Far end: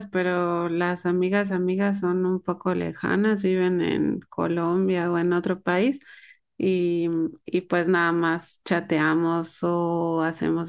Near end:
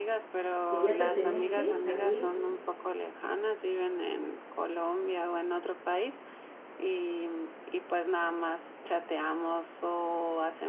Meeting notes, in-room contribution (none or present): present